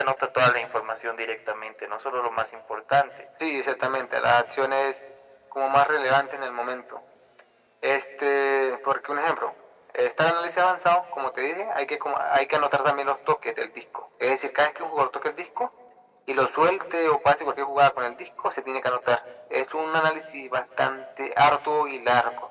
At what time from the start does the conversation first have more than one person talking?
none

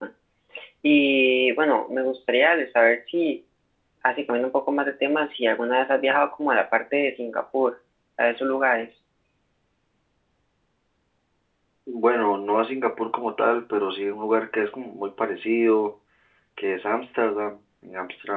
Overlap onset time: none

